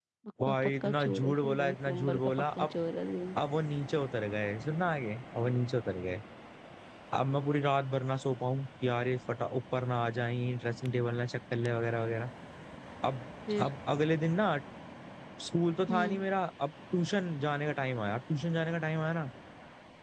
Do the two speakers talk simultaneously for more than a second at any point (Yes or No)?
Yes